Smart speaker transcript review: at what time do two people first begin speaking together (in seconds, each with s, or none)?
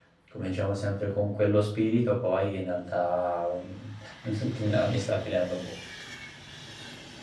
none